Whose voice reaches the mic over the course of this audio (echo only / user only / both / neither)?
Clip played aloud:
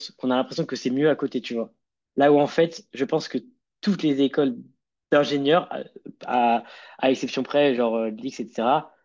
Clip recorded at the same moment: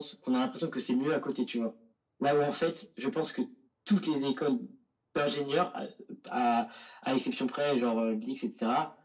echo only